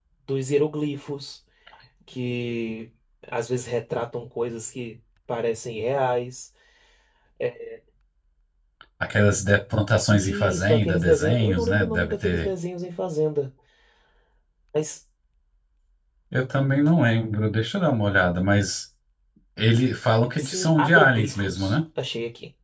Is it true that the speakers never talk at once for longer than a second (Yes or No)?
No